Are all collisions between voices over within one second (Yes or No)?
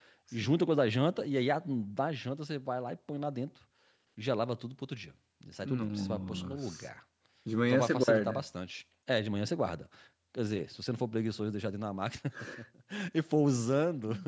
No